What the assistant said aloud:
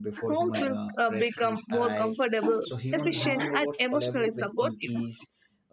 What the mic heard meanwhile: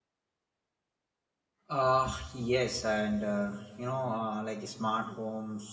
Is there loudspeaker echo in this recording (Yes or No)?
No